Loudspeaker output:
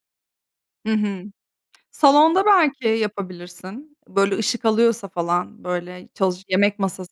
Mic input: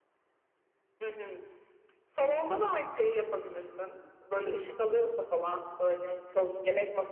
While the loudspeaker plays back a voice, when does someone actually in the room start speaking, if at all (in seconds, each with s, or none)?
none